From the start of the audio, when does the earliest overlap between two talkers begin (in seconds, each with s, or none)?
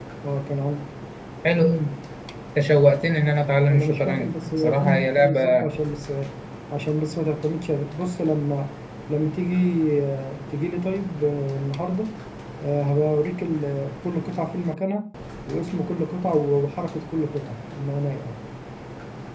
3.7 s